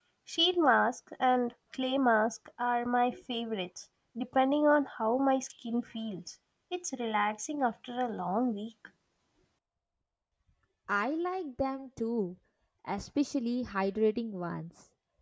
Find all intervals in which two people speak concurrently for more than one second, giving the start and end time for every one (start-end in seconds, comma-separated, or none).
none